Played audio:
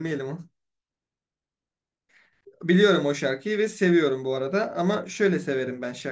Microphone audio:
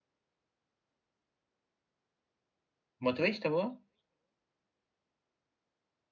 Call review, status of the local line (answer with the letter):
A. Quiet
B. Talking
B